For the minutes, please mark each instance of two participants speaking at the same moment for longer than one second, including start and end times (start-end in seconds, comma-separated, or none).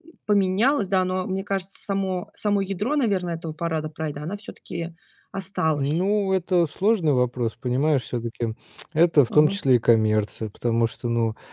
none